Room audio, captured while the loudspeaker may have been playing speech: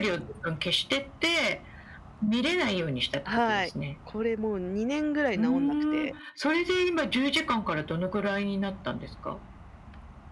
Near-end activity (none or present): present